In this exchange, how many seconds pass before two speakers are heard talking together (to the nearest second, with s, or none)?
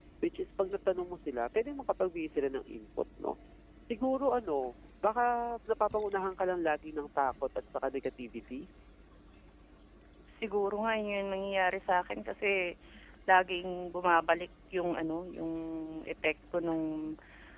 none